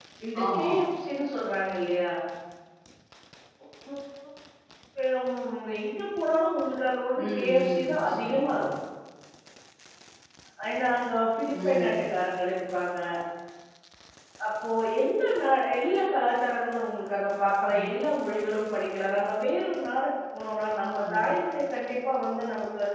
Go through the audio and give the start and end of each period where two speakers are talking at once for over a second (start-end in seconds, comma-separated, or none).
7.3-8.7